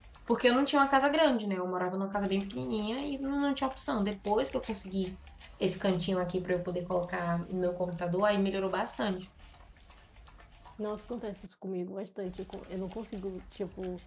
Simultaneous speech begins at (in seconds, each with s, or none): none